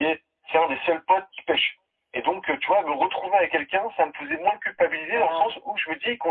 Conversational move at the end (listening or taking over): listening